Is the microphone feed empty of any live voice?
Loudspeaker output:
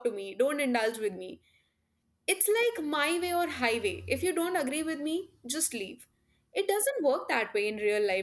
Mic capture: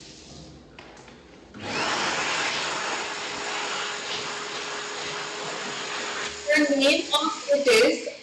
No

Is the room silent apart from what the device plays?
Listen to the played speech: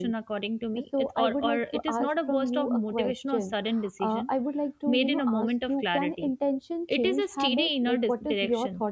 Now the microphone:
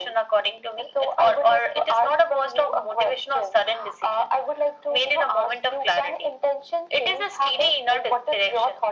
Yes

